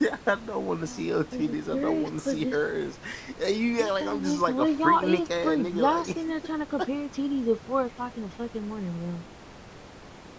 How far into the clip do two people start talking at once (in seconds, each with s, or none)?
0.9 s